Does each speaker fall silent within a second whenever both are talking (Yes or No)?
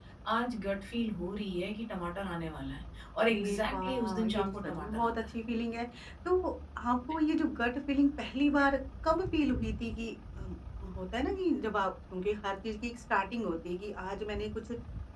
No